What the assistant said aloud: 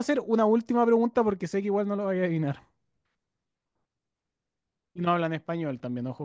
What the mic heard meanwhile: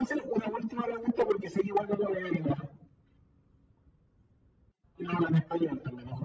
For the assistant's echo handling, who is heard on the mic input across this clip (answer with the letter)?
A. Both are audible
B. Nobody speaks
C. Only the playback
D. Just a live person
C